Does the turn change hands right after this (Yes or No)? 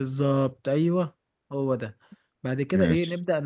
No